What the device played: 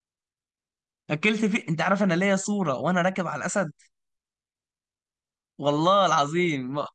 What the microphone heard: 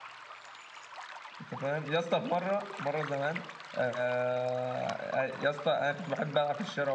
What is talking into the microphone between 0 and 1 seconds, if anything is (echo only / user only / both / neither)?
neither